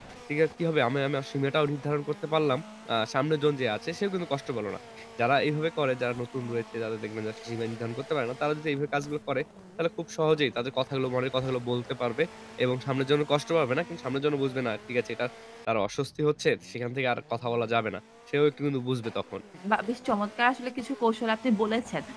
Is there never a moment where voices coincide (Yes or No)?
Yes